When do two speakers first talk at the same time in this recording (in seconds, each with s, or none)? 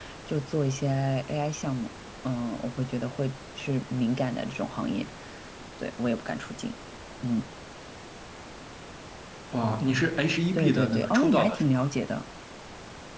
10.5 s